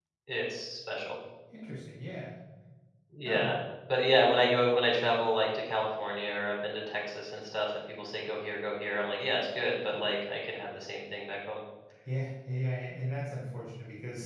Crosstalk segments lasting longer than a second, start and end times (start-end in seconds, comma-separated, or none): none